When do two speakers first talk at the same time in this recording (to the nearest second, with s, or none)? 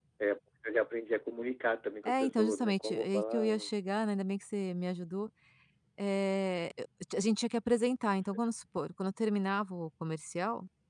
2 s